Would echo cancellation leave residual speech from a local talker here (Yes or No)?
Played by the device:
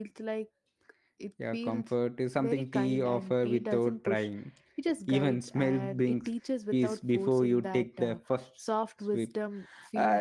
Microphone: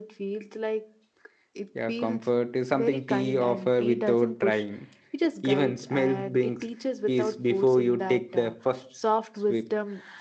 No